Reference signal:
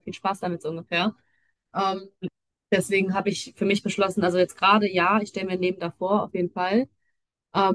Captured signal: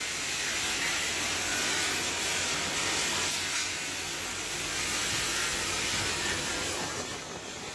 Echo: none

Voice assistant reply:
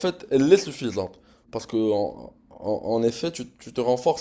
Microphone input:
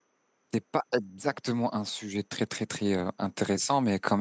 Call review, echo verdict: none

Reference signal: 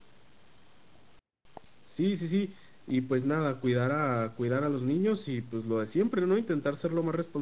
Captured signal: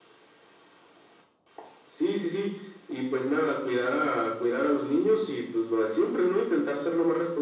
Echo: present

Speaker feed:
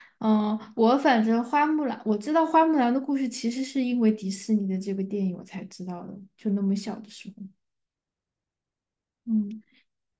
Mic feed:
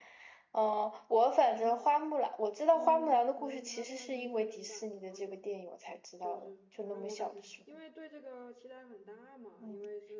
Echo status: present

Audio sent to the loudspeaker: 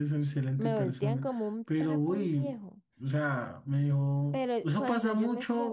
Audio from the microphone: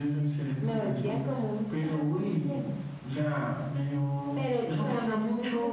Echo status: present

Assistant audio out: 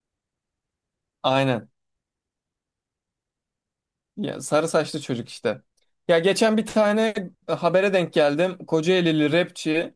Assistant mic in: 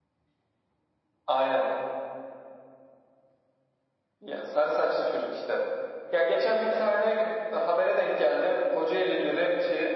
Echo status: present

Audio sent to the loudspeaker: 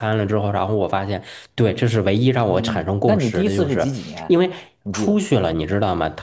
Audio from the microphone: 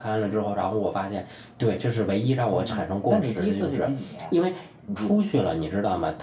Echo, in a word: present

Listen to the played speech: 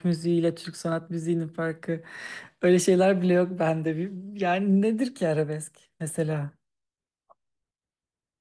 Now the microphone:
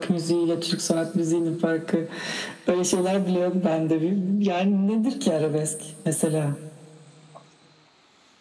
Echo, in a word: present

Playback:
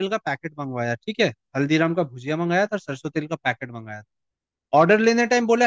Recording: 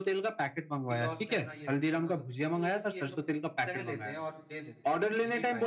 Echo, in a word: present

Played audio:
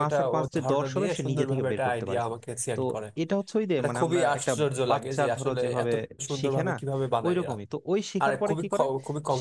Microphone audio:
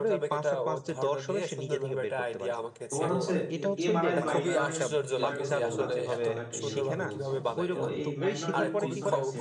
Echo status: present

